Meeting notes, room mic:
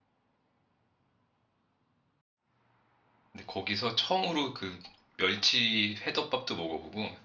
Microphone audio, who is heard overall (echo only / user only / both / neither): user only